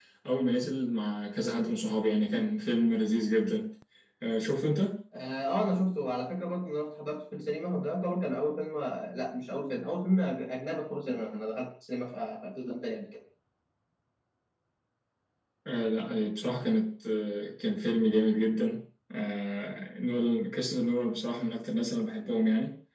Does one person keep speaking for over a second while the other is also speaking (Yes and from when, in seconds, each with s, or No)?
No